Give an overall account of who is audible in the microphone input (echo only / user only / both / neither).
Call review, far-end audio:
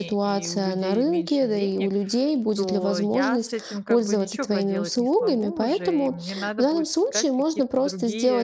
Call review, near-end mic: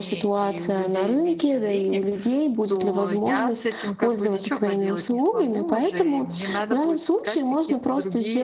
echo only